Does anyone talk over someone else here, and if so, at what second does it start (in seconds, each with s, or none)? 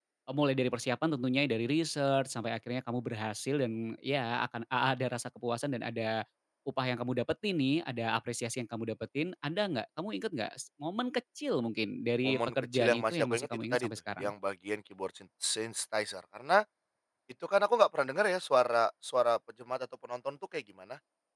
12.2 s